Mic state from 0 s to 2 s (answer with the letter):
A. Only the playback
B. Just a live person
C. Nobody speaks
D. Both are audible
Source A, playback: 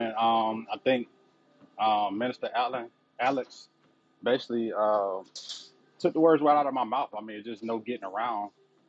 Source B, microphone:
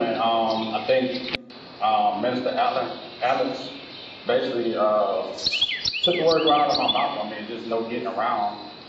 A